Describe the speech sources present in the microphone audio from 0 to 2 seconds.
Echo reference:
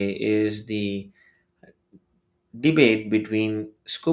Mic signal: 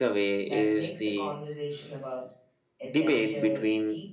both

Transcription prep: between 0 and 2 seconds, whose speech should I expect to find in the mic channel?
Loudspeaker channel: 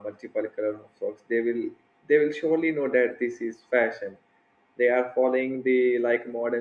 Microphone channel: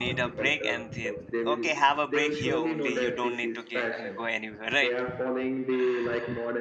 both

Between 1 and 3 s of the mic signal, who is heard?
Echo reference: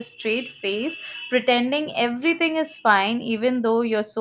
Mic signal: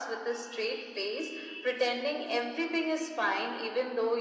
echo only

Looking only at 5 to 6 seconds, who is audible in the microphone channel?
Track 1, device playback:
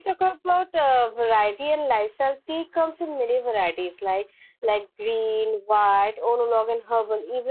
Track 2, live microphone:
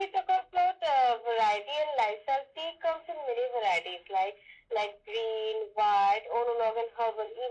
echo only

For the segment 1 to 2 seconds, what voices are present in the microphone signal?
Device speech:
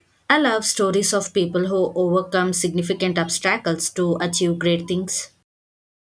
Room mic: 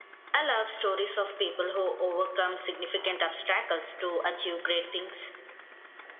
echo only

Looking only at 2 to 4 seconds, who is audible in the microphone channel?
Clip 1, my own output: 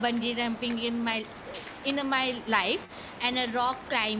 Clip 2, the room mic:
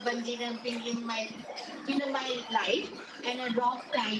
echo only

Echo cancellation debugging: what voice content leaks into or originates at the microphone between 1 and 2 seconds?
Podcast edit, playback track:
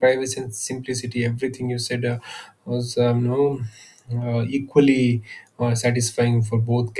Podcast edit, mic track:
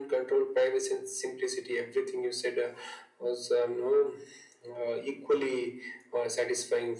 echo only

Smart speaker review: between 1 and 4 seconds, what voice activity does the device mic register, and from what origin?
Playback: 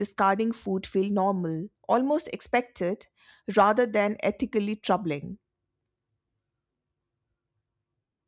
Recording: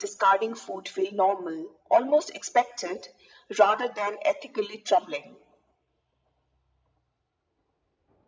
echo only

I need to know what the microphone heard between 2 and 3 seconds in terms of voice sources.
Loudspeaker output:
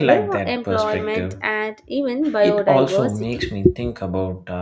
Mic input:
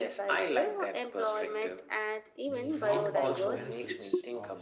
both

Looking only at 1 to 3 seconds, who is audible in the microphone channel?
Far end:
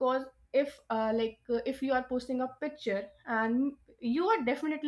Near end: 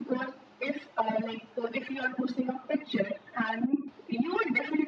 echo only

